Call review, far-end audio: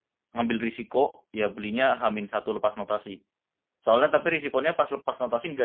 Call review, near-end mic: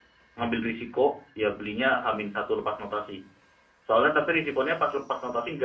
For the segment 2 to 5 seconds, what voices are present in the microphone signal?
echo only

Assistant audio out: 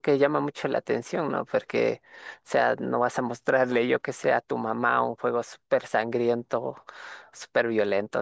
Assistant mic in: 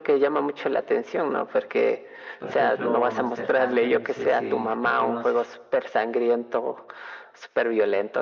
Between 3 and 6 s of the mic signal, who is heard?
both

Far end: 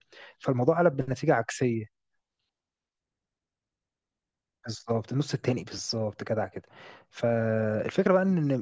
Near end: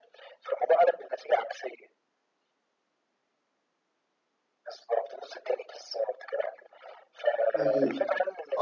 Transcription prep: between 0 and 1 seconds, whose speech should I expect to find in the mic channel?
echo only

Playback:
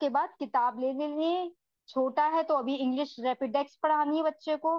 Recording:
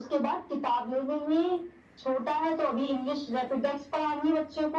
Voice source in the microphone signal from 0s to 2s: echo only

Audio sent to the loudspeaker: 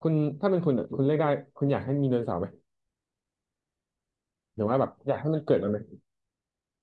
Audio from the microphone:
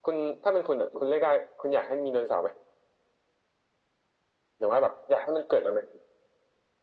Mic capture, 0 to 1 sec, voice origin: echo only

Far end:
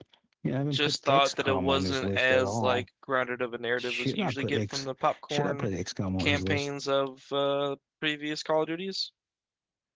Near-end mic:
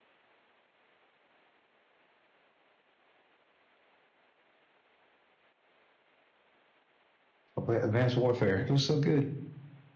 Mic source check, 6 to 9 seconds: user only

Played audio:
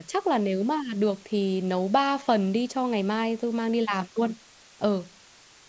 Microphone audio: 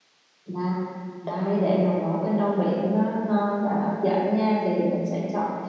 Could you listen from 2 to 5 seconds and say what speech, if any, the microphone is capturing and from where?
user only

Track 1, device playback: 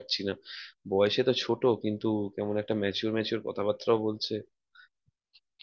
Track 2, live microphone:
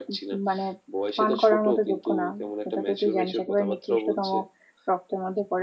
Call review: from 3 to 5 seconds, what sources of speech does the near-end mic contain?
both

